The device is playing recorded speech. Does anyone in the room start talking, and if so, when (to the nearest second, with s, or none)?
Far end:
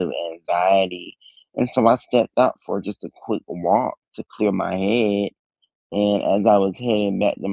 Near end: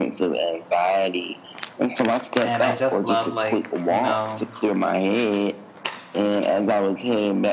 2 s